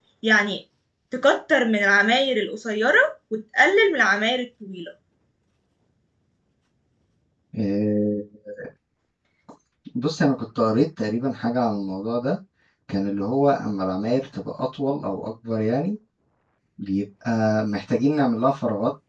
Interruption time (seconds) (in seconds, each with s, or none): none